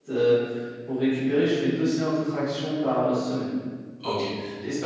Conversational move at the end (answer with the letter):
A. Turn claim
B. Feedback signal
A